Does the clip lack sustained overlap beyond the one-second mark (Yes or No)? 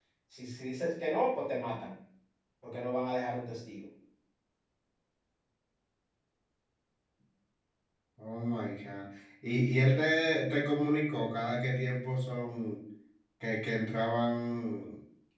Yes